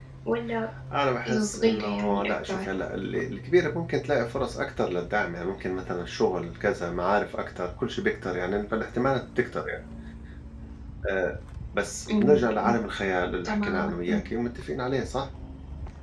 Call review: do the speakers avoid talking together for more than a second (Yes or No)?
No